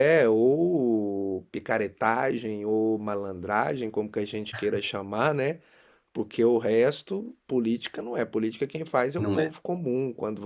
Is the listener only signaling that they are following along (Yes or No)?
Yes